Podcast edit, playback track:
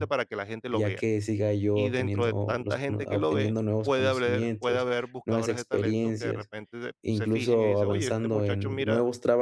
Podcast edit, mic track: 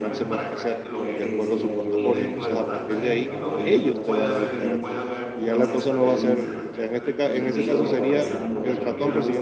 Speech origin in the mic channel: both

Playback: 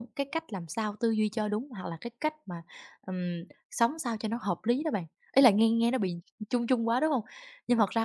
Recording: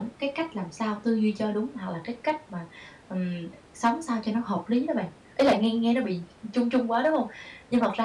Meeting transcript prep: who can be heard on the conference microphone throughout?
echo only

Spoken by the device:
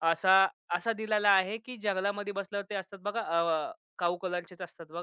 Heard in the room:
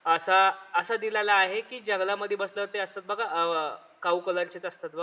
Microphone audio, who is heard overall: echo only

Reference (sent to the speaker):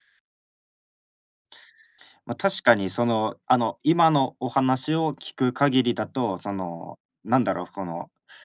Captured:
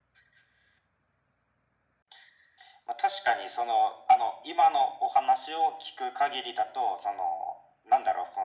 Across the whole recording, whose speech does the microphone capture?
echo only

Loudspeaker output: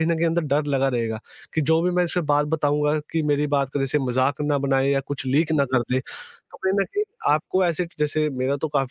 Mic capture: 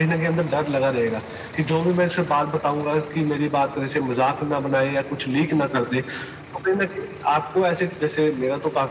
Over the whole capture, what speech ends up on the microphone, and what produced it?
echo only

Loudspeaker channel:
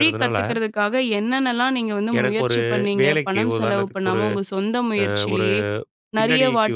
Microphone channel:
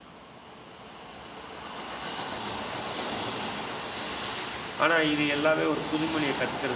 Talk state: user only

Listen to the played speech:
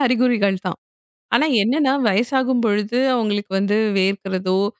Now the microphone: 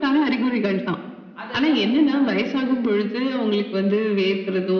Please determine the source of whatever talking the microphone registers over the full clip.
both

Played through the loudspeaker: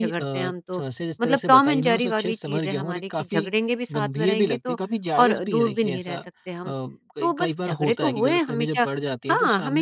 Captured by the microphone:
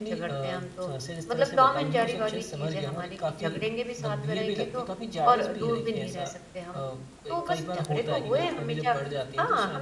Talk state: echo only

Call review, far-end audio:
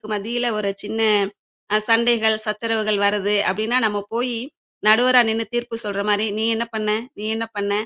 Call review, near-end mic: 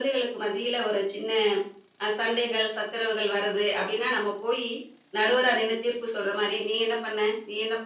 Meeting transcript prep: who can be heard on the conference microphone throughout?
echo only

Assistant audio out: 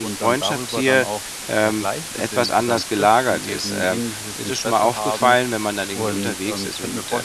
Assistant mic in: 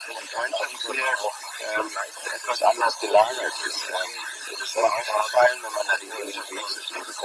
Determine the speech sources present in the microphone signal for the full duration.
echo only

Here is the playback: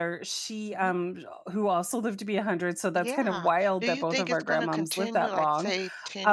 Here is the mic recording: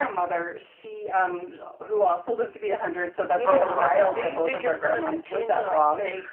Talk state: both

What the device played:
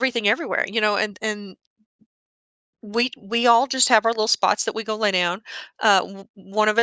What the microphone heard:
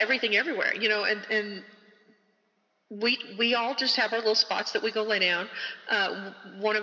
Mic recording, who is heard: echo only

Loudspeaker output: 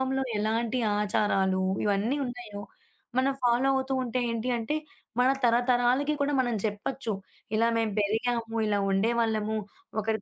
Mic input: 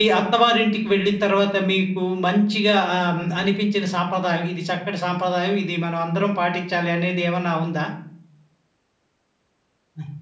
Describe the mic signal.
user only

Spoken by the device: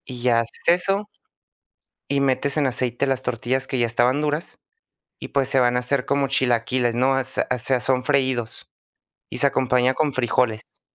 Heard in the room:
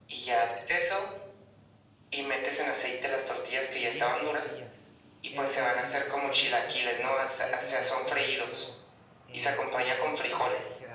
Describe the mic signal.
both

